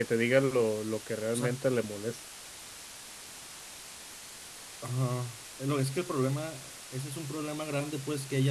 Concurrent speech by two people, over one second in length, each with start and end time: none

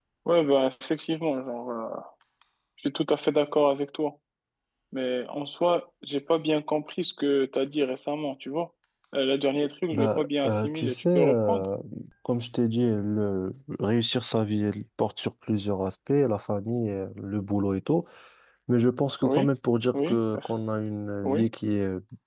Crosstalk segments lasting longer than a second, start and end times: 9.9-11.7

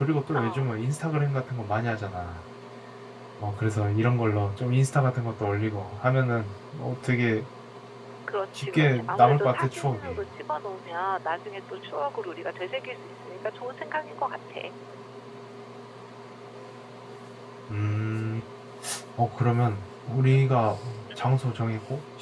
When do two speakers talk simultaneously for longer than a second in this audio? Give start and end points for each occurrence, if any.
8.6-10.2

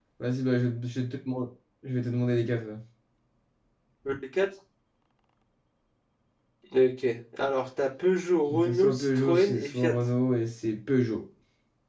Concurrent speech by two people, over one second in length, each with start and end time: 8.5-9.9

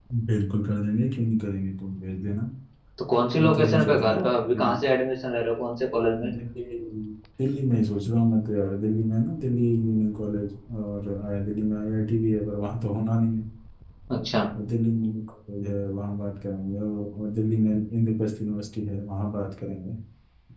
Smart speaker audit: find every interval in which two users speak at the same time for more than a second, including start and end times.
3.4-4.9

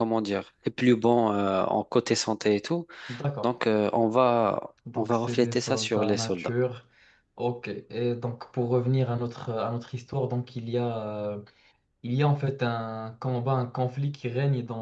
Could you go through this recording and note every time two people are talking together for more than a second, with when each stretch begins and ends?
5.0-6.5

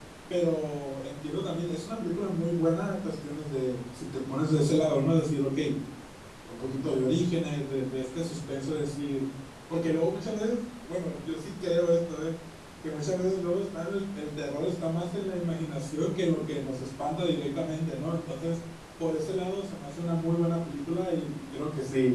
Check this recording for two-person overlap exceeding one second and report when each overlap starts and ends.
none

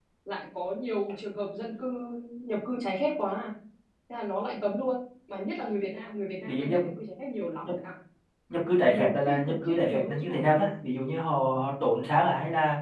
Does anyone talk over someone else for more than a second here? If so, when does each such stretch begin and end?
8.8-10.7

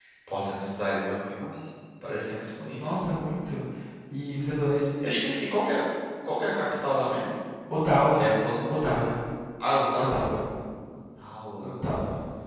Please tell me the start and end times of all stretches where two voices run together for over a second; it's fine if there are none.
none

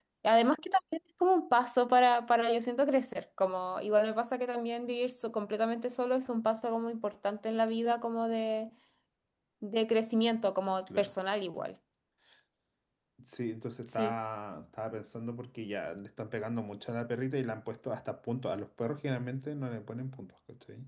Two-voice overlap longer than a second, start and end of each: none

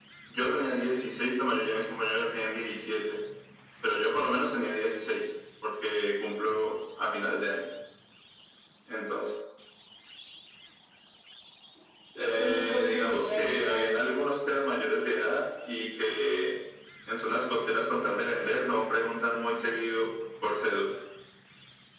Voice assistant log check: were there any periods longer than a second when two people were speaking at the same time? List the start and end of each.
12.2-14.0

